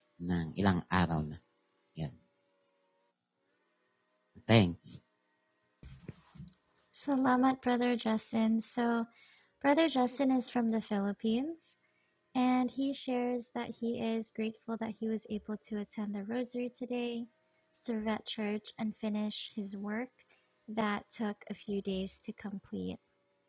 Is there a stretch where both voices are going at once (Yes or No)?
No